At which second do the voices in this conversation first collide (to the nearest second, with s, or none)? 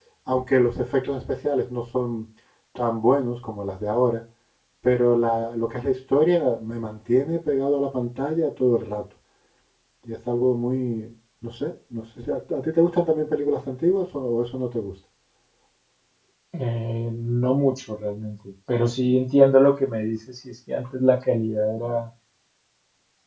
none